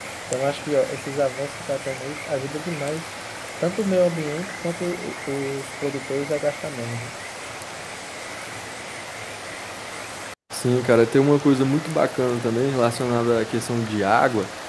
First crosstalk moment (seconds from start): none

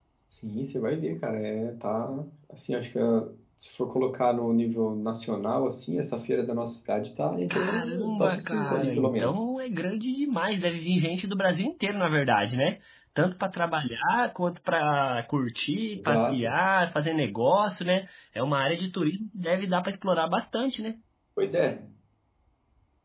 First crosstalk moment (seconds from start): 7.5 s

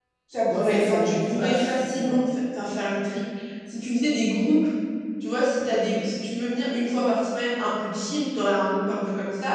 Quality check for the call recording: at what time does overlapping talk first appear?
0.5 s

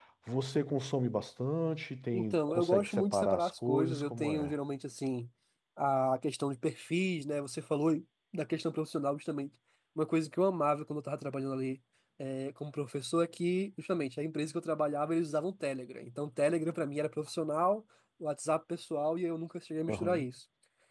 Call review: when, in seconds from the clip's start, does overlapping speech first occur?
2.1 s

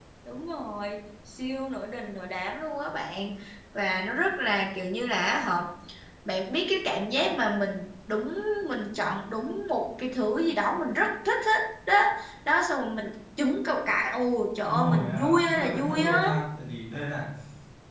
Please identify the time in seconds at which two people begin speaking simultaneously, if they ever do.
14.7 s

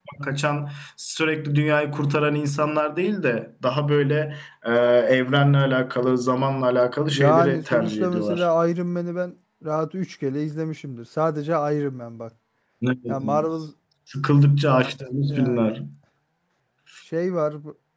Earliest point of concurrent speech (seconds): 7.1 s

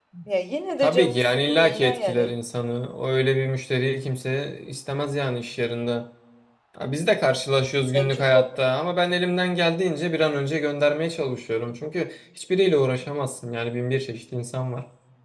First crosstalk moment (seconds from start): 0.8 s

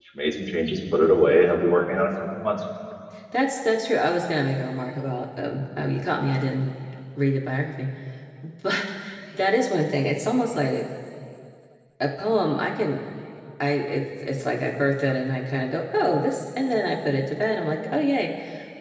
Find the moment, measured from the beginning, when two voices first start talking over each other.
none

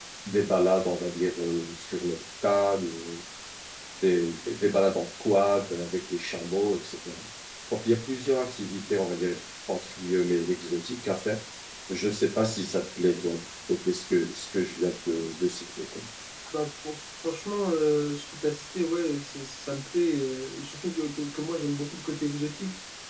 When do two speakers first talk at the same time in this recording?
none

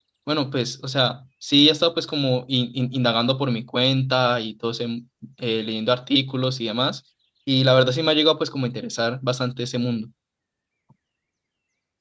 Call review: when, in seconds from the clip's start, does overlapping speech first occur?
none

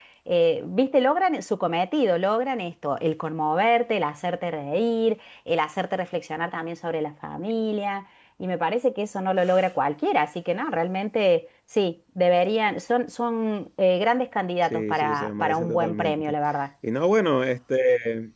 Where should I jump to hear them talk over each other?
14.6 s

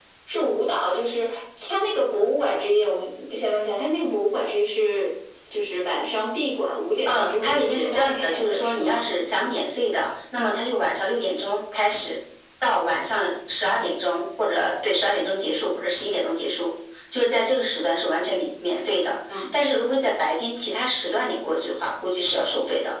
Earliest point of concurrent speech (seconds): 7.1 s

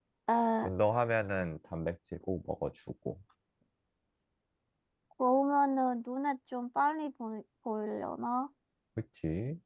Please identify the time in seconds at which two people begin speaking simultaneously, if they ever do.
none

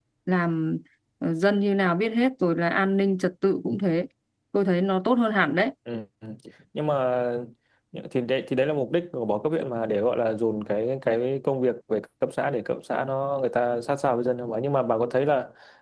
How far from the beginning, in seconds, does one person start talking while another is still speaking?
none

